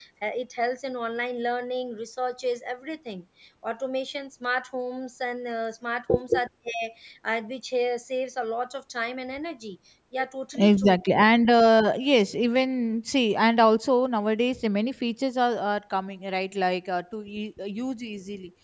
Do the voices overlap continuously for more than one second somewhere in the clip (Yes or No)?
No